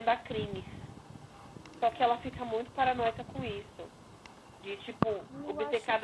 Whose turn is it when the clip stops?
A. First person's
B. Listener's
B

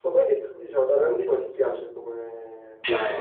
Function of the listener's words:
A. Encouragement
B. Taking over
B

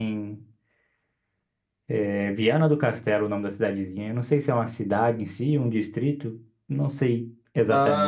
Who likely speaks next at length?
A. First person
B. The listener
B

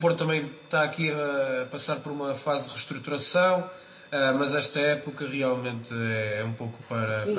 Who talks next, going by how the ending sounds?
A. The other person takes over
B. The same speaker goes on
A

